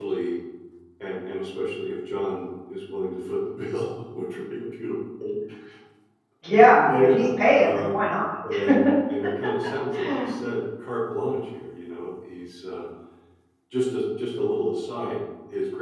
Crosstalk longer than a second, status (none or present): present